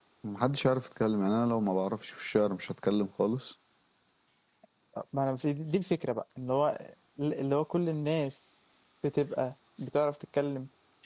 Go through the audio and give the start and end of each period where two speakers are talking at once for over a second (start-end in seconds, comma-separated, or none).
none